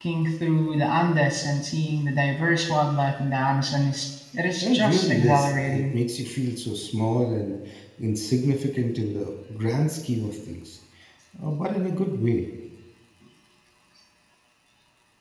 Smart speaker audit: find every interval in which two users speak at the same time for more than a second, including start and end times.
4.6-5.9

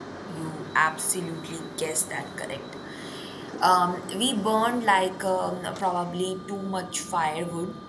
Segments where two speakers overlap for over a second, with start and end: none

